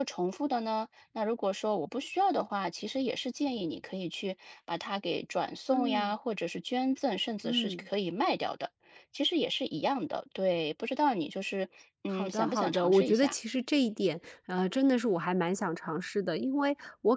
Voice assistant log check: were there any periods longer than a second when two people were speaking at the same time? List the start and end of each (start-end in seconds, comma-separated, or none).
12.1-13.3